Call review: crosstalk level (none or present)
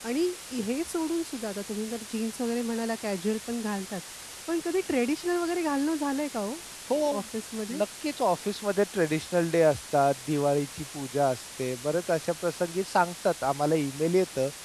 none